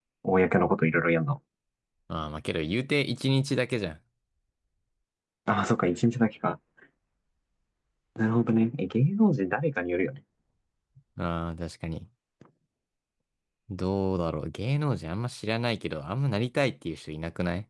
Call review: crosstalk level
none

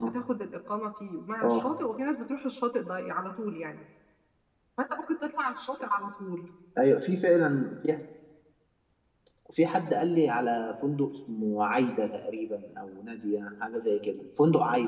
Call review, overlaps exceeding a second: none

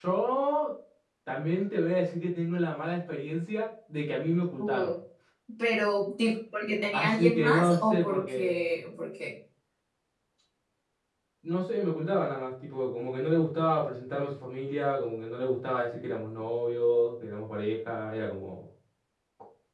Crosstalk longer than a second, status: present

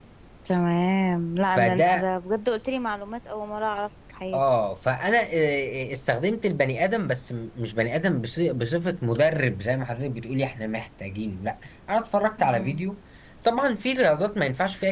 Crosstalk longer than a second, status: none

